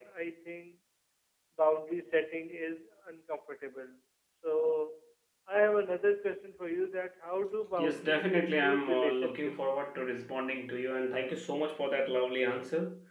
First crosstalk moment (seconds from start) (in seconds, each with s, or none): 7.8 s